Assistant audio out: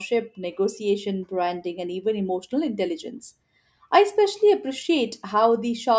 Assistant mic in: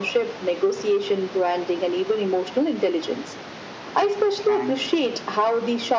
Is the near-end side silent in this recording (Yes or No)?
No